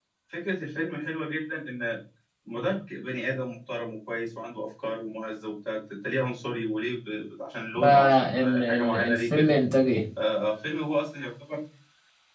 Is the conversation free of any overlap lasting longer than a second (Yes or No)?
No